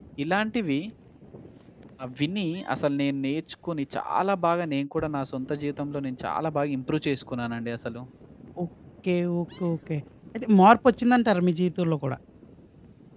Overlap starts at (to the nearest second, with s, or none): none